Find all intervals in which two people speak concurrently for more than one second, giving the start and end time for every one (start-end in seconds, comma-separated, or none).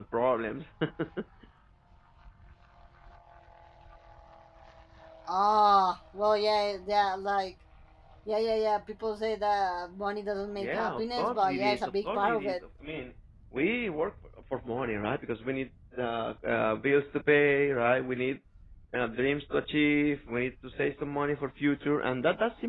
10.6-12.6